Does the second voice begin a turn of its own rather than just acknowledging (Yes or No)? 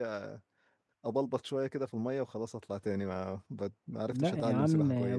Yes